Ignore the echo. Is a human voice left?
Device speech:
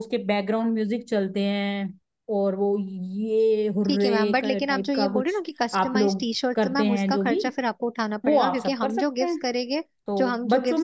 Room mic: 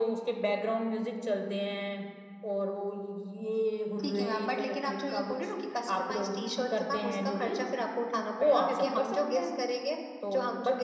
No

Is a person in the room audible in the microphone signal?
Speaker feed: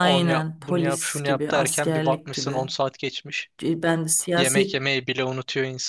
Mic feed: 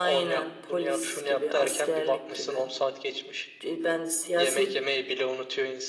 No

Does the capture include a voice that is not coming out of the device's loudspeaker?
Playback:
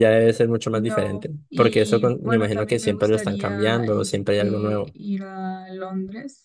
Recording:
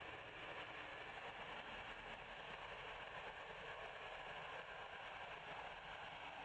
No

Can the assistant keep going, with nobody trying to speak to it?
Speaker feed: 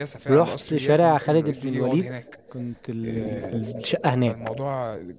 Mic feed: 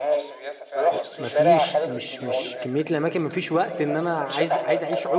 No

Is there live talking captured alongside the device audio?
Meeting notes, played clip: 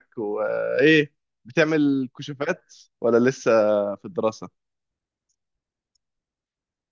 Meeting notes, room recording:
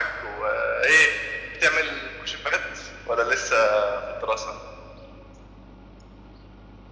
No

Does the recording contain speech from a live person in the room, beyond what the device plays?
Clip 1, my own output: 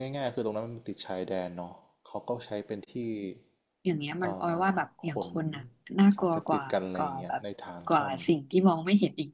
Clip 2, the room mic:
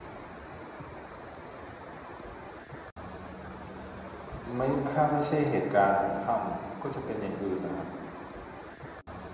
Yes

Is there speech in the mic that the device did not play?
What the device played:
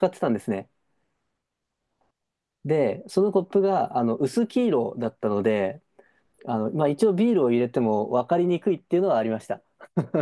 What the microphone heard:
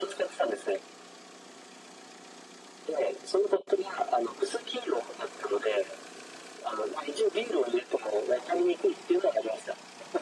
No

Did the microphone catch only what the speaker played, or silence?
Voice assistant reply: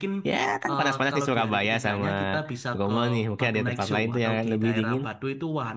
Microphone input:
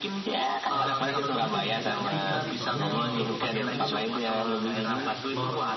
No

